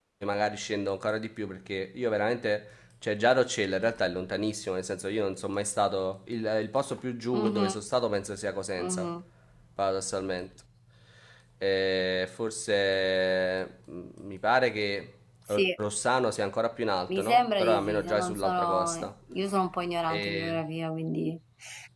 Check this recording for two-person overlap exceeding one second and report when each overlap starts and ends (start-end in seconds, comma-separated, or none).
17.1-19.1